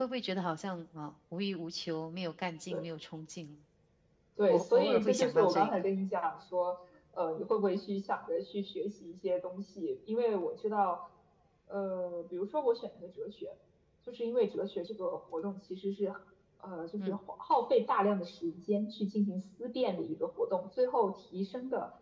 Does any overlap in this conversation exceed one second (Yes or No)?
Yes